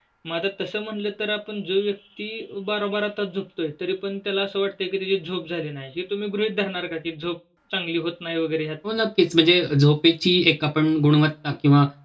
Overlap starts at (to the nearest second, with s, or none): none